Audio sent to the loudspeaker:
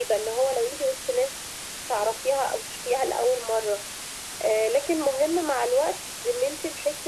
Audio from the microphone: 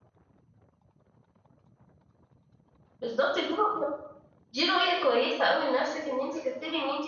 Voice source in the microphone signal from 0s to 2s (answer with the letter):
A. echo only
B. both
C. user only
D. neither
D